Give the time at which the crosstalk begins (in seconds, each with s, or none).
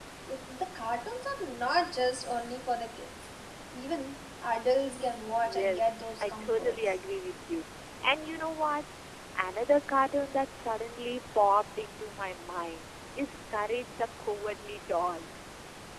5.4 s